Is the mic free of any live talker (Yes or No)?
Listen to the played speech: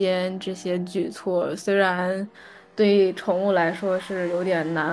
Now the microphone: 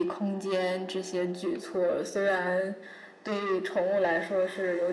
Yes